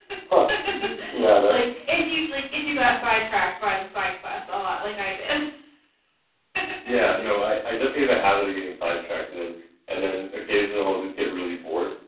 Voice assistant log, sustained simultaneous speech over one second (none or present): none